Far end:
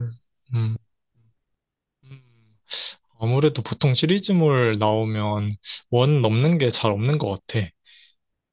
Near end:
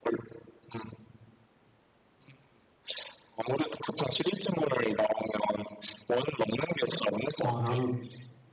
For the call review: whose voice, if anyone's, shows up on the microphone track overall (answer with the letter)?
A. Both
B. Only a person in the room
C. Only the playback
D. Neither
A